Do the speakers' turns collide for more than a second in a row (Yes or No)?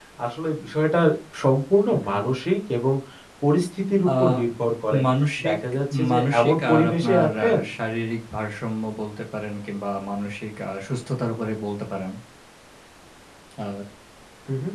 Yes